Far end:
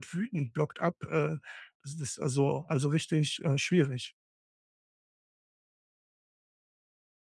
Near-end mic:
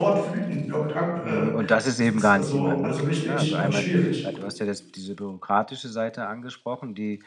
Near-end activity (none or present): present